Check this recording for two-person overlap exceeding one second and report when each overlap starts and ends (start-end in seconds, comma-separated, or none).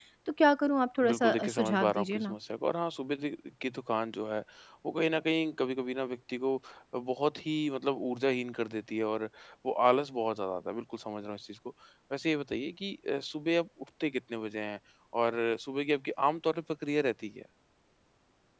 1.1-2.4